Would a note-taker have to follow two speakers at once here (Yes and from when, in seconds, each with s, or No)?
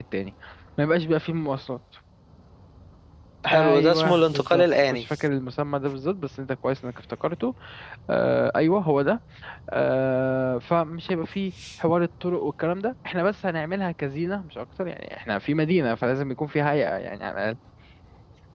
Yes, from 3.5 s